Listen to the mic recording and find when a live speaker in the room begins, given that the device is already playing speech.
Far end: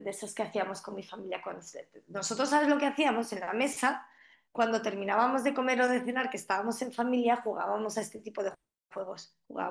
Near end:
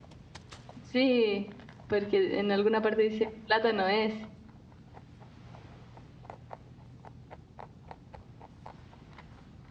1 s

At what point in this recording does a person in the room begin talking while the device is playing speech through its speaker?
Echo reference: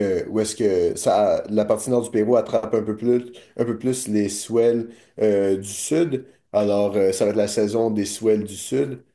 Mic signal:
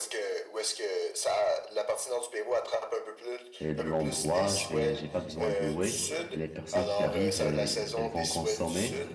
4 s

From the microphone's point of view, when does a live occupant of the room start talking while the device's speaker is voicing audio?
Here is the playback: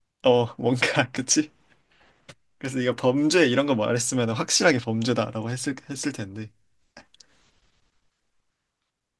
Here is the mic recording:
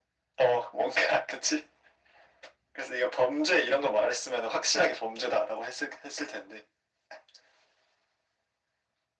none

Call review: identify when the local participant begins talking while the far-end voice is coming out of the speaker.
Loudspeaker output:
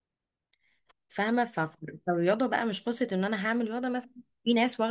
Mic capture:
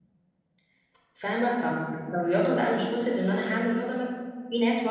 none

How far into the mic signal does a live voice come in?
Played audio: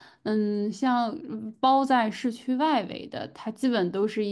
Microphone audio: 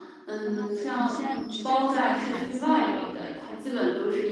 0 s

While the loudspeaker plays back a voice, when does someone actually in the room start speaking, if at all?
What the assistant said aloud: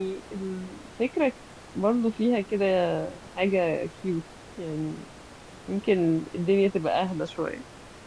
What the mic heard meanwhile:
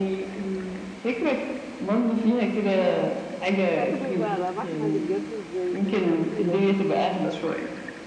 4 s

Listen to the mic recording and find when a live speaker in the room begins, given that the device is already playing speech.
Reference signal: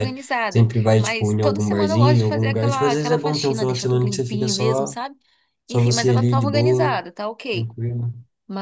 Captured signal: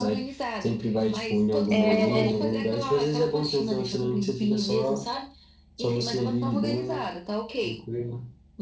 2 s

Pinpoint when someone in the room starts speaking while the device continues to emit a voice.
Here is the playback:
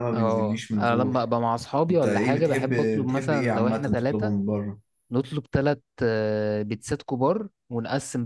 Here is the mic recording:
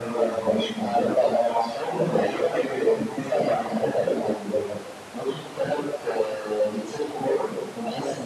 none

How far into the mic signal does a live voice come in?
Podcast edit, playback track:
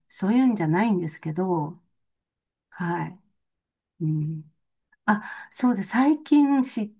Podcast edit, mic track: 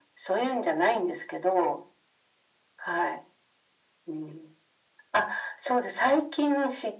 none

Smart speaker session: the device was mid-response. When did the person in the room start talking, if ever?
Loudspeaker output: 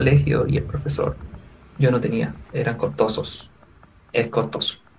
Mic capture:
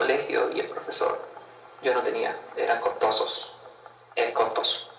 none

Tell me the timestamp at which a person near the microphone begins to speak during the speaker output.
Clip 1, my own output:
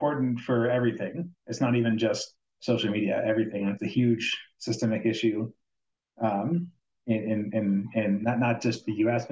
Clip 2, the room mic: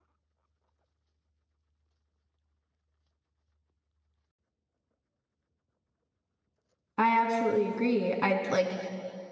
7 s

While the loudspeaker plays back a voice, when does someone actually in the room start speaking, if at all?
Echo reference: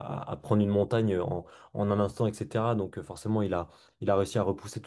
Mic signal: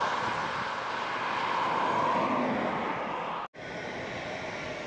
none

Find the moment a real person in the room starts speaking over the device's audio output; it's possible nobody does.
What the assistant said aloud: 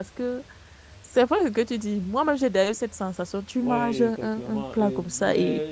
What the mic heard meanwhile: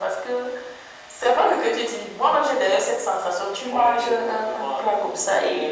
none

